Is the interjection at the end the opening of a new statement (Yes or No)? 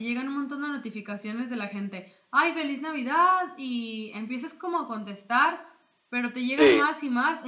No